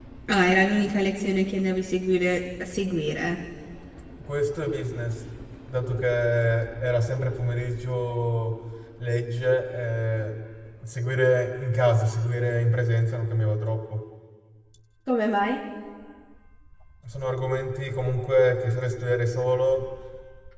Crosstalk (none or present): none